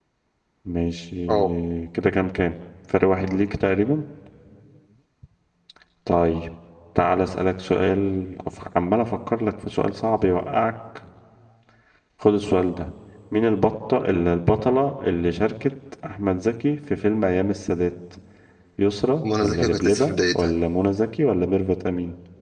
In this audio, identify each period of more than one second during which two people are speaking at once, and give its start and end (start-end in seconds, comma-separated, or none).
19.2-20.5